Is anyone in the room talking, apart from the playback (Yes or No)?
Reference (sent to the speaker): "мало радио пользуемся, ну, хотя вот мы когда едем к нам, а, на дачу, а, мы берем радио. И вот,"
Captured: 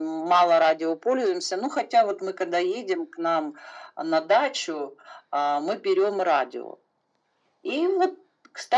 No